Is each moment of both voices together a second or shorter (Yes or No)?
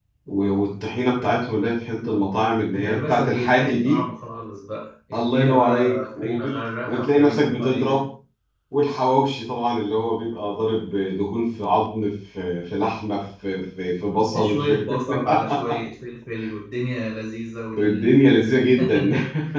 No